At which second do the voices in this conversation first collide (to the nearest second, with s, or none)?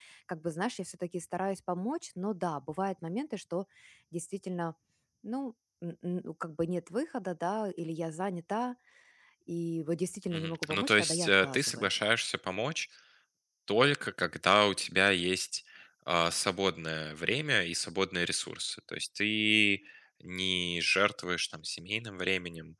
10 s